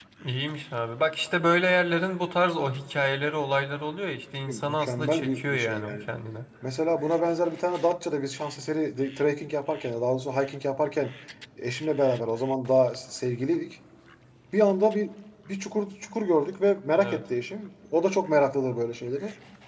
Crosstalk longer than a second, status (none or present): present